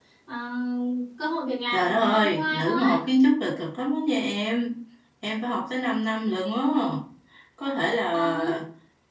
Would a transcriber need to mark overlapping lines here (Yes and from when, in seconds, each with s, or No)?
Yes, from 1.7 s